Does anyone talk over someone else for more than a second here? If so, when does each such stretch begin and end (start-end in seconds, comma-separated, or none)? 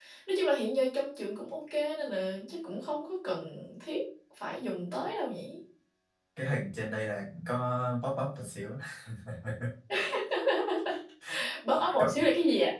none